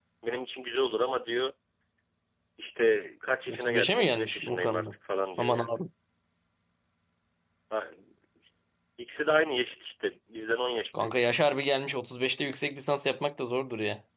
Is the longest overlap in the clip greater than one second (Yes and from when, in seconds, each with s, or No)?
Yes, from 3.5 s